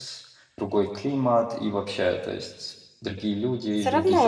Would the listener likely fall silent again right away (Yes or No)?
No